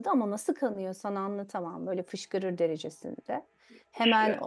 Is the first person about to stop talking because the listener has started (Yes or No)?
No